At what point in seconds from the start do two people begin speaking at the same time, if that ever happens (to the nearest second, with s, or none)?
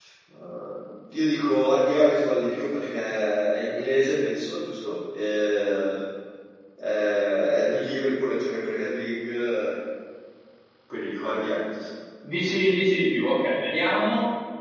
none